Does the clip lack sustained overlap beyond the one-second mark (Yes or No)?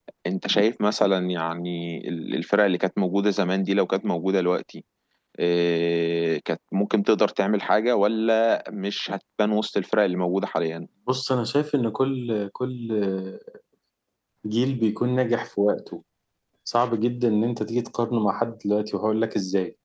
Yes